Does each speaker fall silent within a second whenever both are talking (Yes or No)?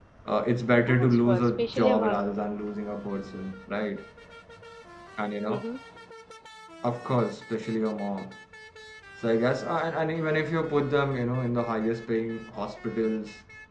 No